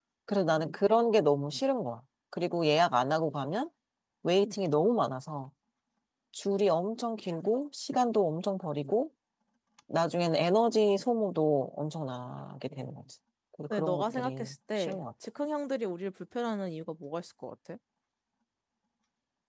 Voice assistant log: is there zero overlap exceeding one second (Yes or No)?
No